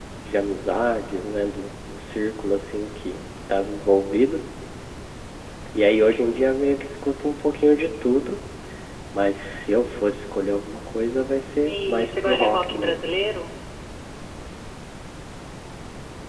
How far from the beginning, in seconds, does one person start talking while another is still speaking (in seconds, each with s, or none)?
11.6 s